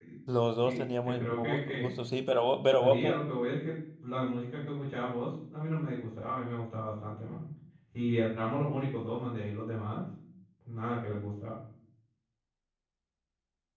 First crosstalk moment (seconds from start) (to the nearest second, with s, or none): 1 s